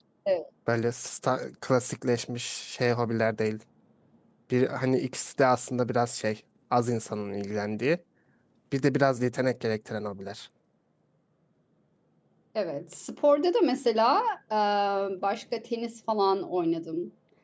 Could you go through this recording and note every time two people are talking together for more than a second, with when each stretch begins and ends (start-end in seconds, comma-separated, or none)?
none